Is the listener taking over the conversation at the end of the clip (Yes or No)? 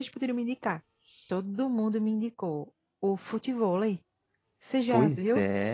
Yes